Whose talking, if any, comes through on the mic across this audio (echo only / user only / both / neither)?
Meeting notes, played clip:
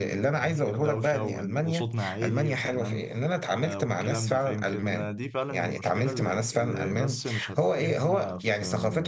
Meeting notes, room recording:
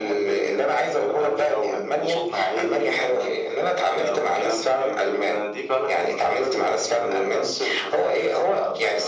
echo only